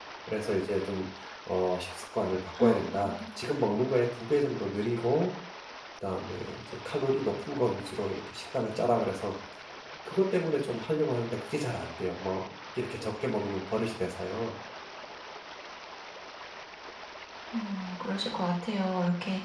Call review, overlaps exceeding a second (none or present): none